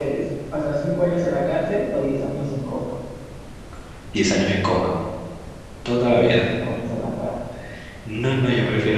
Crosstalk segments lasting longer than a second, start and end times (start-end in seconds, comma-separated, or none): none